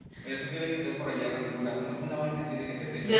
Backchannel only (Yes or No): No